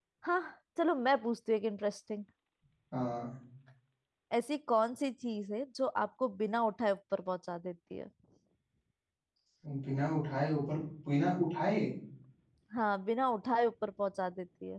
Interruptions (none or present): none